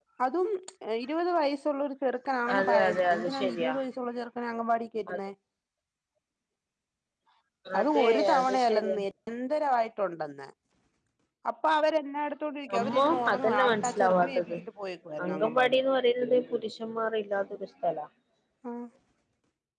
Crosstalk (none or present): present